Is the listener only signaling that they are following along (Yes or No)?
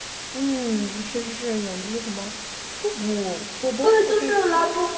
No